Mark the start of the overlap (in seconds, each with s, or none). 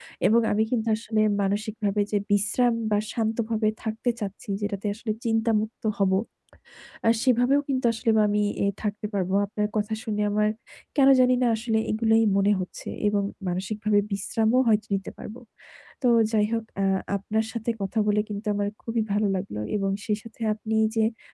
none